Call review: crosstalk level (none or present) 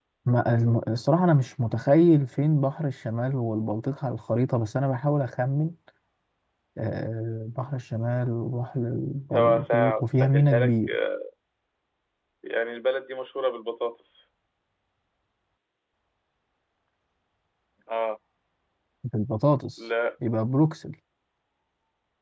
present